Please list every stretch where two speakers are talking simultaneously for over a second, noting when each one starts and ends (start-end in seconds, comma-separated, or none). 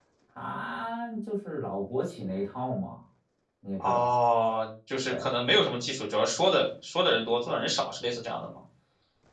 none